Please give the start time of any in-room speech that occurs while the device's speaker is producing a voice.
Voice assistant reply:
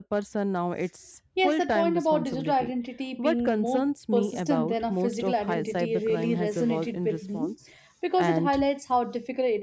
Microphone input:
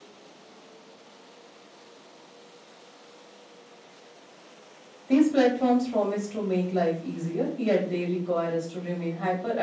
5.1 s

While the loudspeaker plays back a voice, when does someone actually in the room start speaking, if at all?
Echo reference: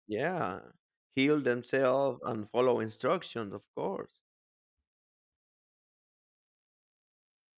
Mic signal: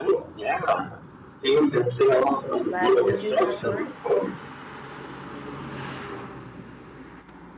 2.6 s

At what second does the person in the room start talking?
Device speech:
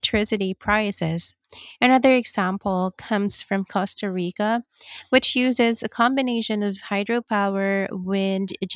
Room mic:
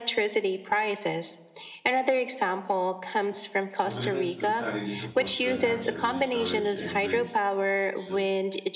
3.8 s

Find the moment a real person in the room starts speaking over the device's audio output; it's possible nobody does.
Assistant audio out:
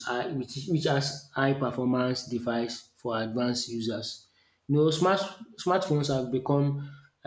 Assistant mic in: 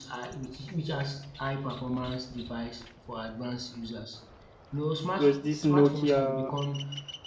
5.2 s

